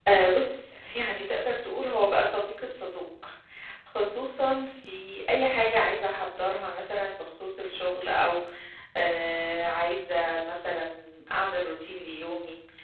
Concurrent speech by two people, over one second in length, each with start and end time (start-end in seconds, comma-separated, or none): none